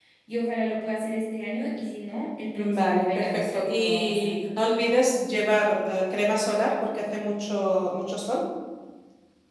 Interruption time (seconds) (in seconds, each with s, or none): 2.6 s